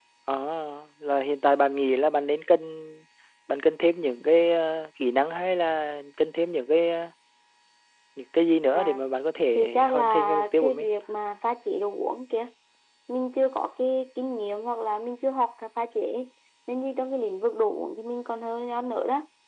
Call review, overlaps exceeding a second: present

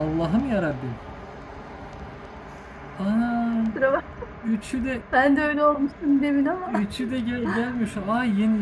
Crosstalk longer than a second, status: none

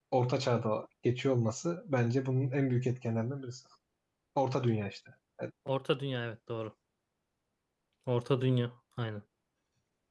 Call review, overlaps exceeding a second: none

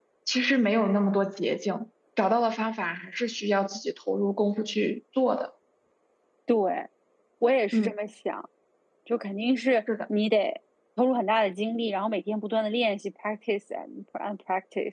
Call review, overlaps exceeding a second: none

